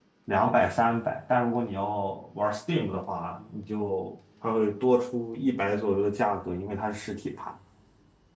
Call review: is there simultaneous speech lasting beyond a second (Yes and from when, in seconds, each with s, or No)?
No